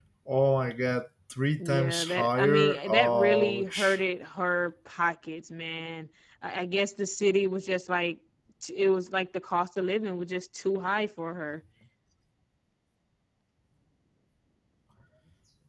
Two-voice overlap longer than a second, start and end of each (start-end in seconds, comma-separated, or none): 1.6-4.0